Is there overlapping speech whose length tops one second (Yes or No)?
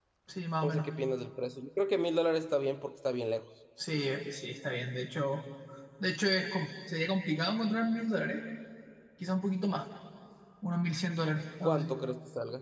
No